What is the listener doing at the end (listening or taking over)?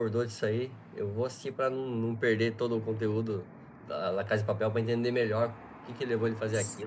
taking over